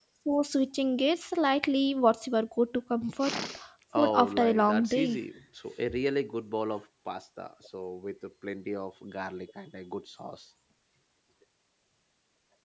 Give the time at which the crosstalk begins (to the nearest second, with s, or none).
4 s